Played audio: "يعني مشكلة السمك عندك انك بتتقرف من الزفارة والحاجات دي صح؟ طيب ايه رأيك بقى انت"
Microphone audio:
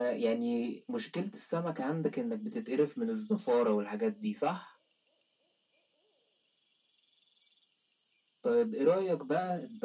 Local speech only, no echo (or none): none